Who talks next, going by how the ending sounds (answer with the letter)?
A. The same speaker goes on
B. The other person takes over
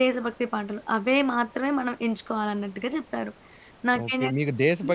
B